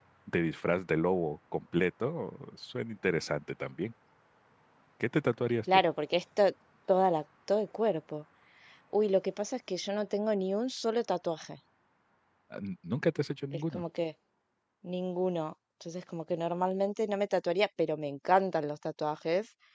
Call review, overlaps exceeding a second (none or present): none